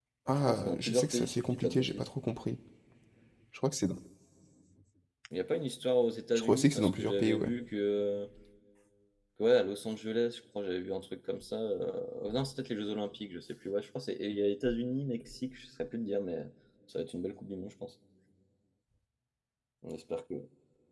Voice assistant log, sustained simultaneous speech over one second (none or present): present